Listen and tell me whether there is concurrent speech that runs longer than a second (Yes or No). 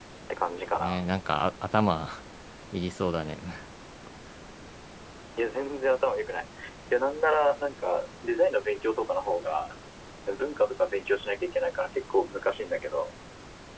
No